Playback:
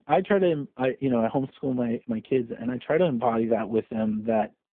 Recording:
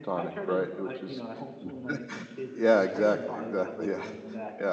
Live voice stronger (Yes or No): Yes